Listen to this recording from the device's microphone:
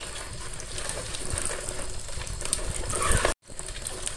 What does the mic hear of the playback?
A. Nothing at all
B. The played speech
A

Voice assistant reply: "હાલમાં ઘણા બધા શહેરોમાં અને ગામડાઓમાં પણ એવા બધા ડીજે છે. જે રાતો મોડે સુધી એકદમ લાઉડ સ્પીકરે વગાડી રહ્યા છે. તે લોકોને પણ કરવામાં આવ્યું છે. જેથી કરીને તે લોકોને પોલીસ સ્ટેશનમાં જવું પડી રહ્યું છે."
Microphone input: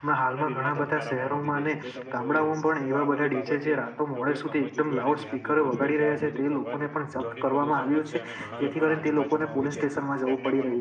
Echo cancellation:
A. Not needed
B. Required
B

